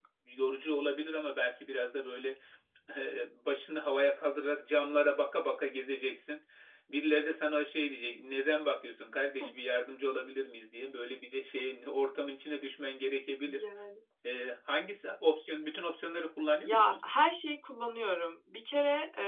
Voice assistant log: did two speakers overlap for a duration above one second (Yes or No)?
No